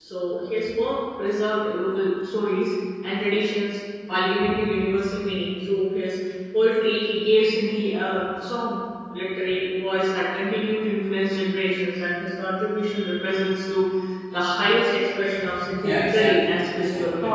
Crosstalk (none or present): present